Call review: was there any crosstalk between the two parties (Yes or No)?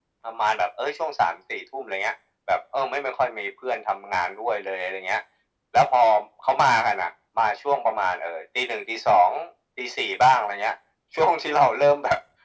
No